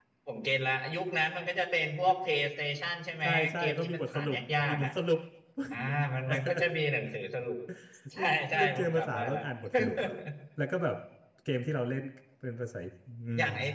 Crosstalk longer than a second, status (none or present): present